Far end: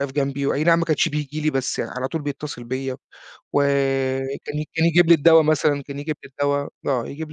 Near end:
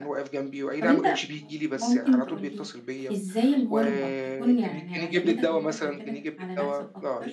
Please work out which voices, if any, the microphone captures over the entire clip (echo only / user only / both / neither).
both